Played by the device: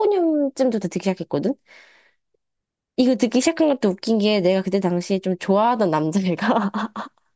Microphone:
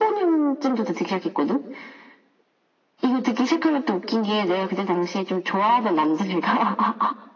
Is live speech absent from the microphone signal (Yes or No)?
Yes